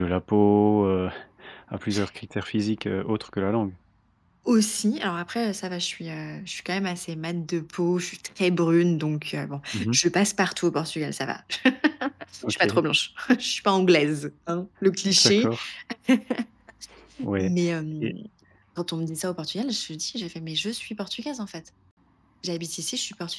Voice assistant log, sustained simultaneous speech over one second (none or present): none